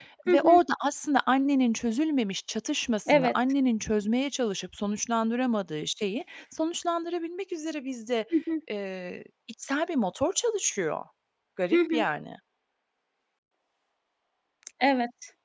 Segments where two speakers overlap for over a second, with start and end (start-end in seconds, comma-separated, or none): none